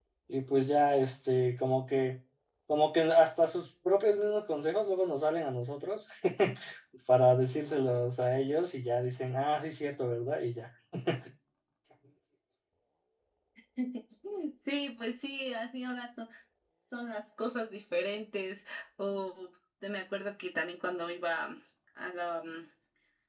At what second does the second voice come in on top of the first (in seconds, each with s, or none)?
none